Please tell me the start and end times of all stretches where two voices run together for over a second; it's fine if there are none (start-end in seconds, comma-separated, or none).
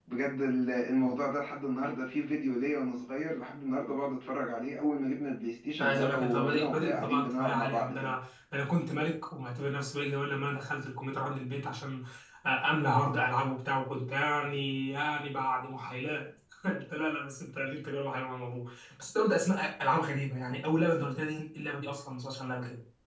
5.8-8.1